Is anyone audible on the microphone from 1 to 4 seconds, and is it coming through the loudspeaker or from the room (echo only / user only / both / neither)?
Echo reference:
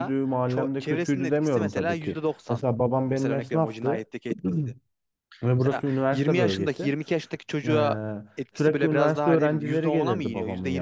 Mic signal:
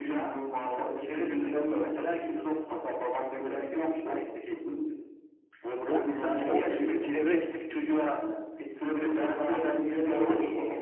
echo only